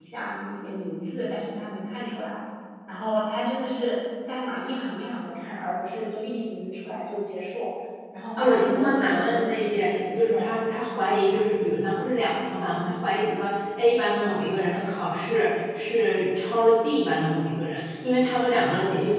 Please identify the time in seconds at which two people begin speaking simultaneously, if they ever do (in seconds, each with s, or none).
8.4 s